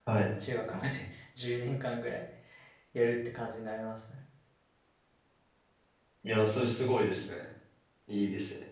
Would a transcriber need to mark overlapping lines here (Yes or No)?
No